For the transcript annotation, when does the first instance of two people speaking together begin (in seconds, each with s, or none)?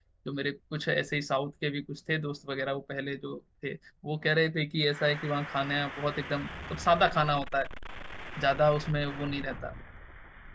none